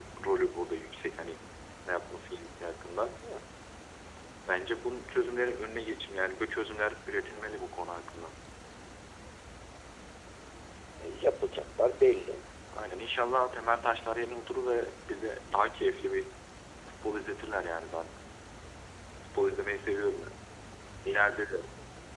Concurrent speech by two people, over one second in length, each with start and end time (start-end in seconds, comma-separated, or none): none